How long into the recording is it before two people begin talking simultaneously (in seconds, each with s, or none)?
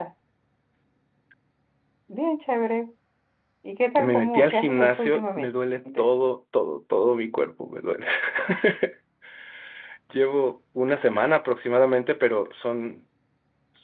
4.0 s